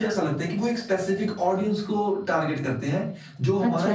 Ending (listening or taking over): taking over